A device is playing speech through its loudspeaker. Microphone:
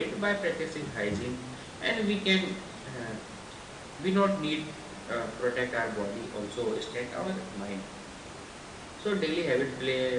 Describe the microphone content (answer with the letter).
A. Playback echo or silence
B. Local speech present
A